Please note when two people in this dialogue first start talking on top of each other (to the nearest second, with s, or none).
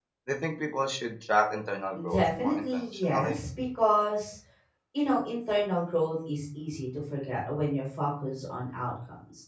2 s